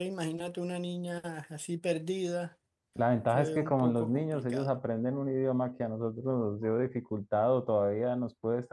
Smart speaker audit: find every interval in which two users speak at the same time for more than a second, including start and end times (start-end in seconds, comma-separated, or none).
3.3-4.8